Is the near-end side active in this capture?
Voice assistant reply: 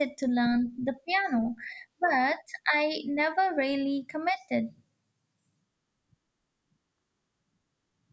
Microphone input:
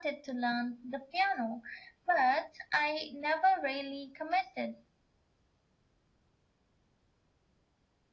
No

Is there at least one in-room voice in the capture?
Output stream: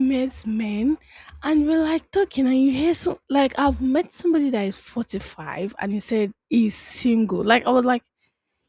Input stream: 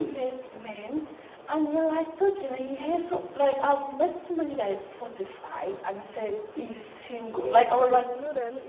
Yes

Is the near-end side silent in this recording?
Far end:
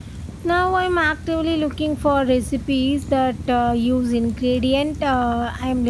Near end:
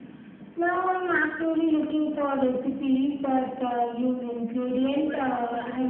No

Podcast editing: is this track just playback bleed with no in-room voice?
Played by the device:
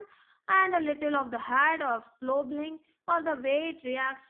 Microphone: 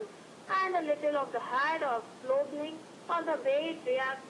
Yes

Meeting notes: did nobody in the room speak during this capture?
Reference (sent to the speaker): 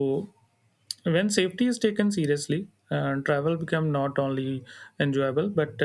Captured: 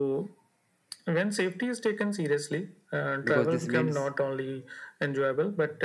No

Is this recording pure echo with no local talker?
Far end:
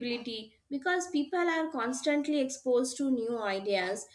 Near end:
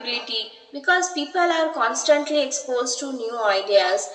Yes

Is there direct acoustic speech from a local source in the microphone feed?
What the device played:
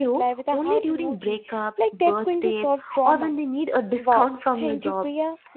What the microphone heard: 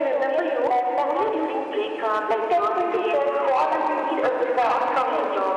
No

